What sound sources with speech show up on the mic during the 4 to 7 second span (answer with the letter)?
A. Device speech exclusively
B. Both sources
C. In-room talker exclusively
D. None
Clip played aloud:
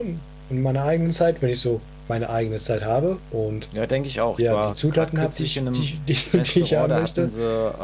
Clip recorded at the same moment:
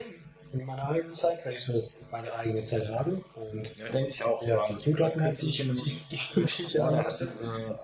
A